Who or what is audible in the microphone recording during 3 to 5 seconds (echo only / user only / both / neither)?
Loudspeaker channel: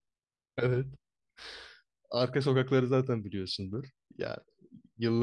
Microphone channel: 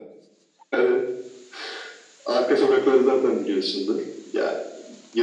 echo only